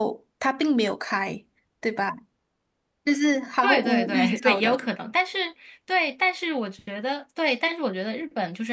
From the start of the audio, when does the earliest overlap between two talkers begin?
4 s

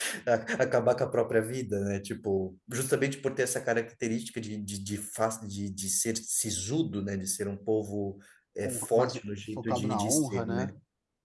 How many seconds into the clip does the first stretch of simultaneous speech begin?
9 s

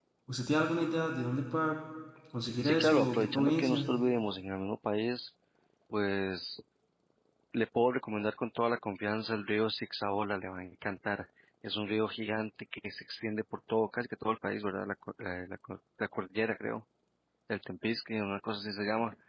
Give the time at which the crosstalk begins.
3 s

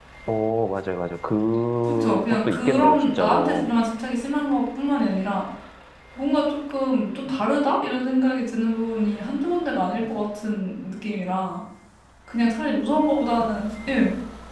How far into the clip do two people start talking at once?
2 s

